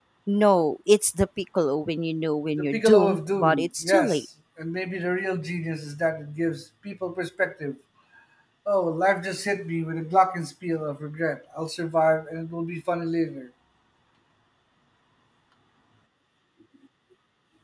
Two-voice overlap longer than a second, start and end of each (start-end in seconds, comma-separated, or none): 2.6-4.2